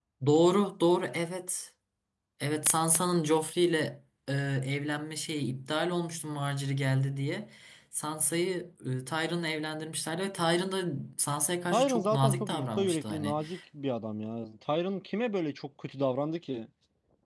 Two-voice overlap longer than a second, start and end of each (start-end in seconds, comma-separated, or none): 11.7-13.4